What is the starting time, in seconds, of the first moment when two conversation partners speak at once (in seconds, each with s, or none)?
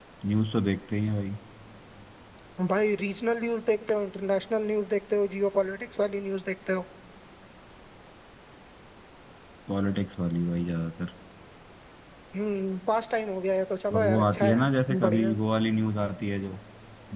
13.9 s